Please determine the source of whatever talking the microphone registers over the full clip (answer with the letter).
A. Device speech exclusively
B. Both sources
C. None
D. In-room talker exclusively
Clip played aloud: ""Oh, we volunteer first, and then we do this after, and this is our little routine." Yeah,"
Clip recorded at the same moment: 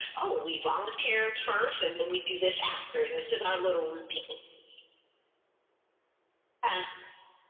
A